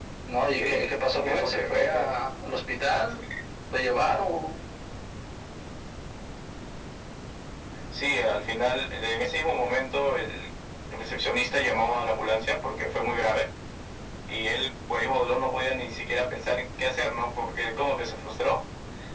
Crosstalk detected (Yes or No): Yes